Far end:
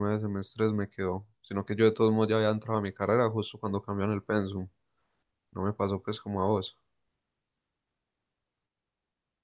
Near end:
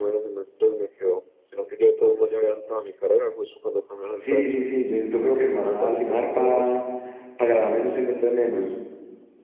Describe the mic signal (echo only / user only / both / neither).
both